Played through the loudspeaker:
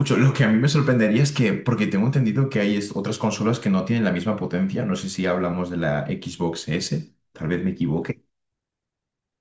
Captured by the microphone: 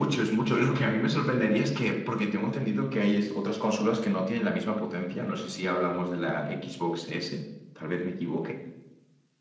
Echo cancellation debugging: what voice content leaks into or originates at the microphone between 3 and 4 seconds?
echo only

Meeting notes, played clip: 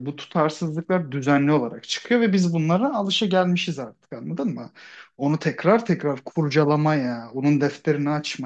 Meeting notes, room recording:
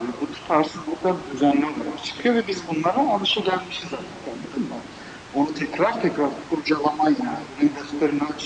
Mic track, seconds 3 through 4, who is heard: echo only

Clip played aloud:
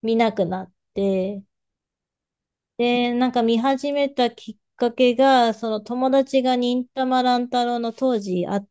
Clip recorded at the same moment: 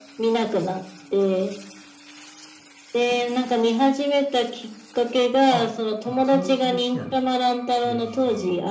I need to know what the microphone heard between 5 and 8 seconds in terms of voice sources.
both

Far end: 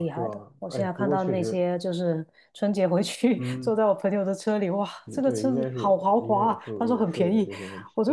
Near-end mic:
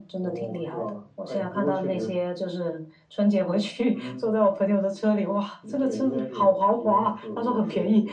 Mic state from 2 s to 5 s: echo only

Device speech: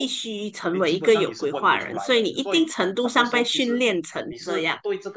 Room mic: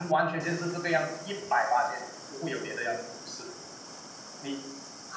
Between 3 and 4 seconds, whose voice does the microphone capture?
user only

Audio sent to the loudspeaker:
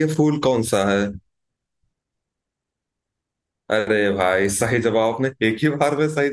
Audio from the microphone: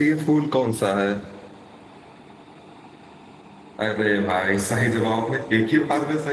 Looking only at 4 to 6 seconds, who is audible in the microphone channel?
echo only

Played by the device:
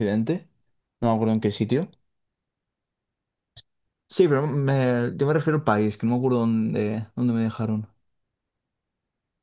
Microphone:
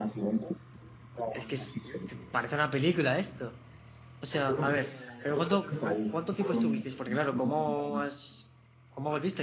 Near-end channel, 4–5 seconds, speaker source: both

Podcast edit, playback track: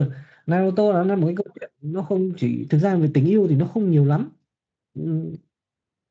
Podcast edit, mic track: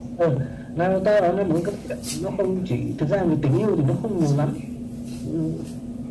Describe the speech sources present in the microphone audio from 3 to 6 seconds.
echo only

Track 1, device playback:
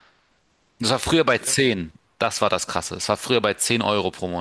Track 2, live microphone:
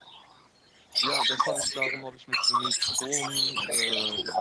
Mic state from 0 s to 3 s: both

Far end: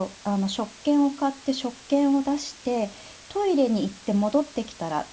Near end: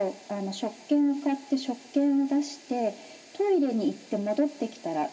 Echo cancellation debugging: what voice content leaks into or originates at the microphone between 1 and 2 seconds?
echo only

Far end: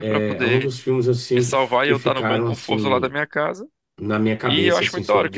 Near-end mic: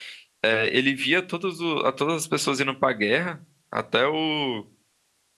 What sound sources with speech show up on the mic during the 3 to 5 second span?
user only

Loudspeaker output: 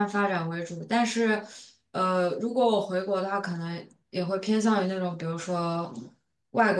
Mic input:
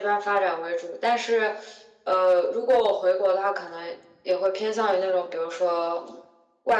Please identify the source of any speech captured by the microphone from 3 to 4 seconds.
echo only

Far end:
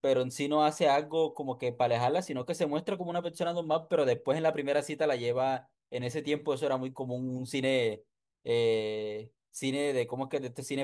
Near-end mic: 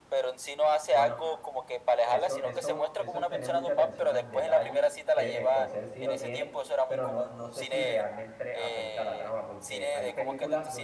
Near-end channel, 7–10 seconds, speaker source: both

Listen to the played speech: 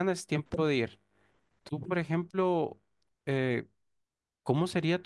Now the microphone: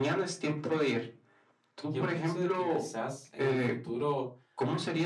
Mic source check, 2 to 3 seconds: both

